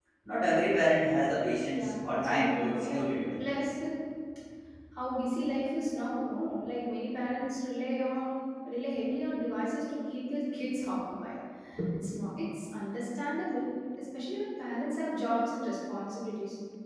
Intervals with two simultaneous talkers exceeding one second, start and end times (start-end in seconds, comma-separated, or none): 1.7-3.4